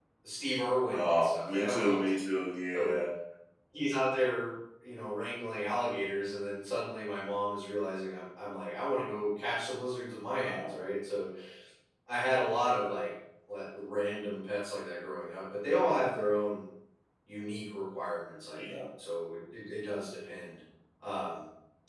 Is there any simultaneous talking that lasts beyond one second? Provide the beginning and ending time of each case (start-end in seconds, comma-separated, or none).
0.9-2.9